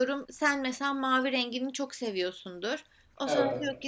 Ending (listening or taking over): listening